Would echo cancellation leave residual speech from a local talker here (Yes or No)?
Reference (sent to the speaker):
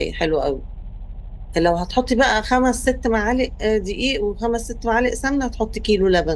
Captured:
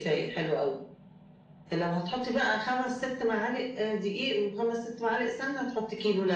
No